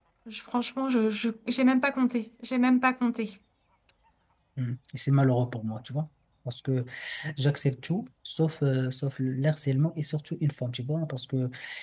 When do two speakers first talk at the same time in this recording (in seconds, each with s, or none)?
none